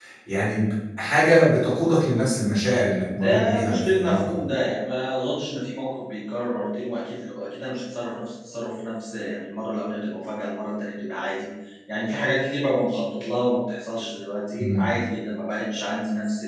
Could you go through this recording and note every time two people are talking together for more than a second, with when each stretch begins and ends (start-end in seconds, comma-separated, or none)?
3.2-4.5